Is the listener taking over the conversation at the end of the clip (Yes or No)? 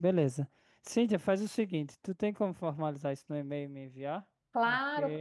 Yes